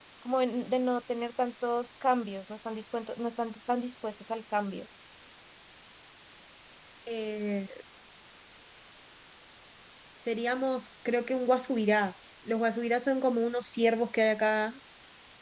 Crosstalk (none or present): none